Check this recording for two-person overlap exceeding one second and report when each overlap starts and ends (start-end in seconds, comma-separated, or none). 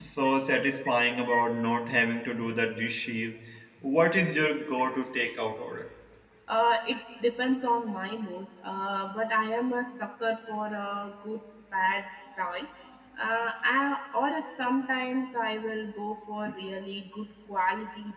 none